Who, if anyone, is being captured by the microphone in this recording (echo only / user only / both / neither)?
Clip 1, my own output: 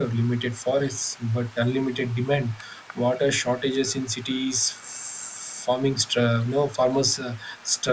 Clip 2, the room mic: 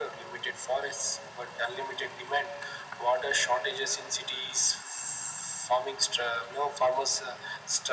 echo only